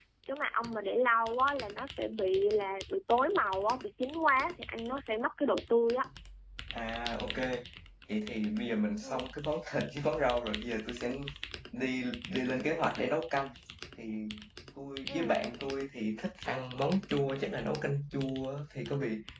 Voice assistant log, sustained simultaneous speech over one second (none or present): none